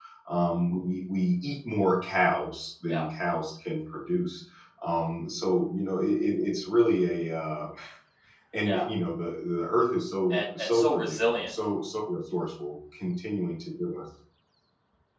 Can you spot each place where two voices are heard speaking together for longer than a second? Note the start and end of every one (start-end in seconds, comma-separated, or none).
10.3-11.5